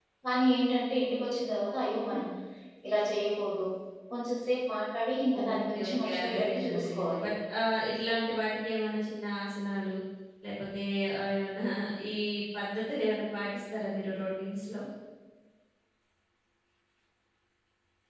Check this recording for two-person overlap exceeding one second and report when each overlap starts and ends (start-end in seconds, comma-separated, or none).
5.4-7.3